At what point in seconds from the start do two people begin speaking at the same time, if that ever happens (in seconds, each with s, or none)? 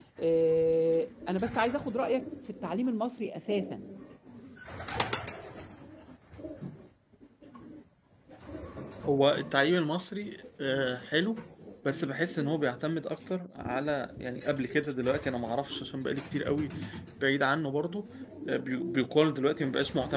none